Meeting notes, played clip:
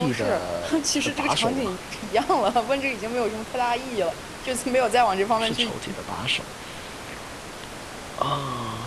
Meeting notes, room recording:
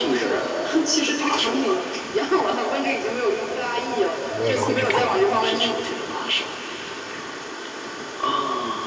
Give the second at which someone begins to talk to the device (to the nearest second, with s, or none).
4 s